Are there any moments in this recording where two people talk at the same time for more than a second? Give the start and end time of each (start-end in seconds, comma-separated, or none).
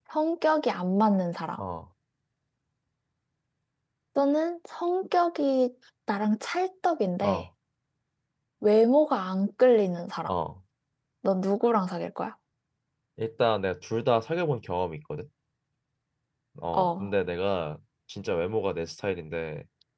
none